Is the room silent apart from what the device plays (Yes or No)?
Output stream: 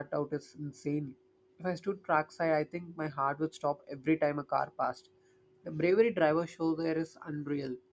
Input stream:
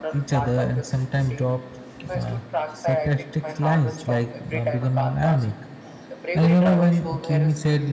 No